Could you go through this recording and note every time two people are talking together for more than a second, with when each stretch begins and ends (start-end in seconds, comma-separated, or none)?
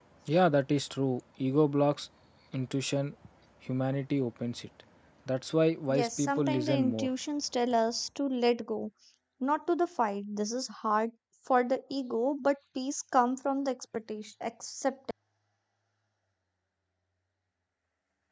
5.9-7.1